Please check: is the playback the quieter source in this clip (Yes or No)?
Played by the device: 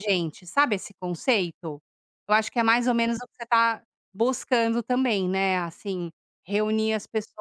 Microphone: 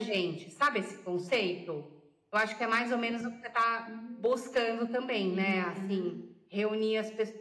No